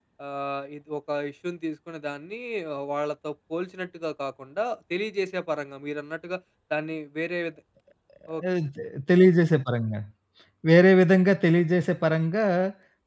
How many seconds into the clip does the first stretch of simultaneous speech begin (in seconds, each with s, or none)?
none